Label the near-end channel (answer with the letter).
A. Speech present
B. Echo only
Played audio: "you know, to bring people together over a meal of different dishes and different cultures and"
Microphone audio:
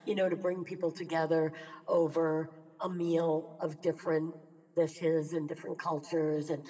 B